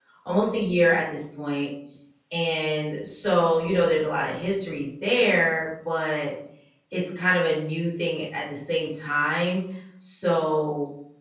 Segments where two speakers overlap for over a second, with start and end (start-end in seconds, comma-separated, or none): none